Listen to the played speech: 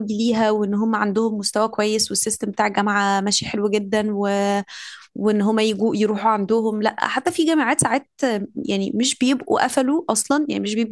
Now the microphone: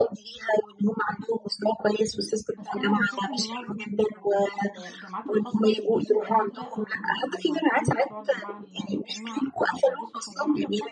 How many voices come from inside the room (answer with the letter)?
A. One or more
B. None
A